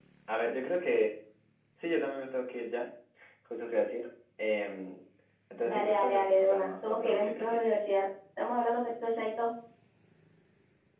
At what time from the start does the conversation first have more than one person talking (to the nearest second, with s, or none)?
6 s